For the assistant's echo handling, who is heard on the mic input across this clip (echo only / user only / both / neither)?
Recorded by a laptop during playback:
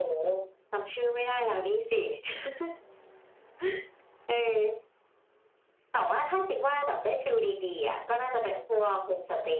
echo only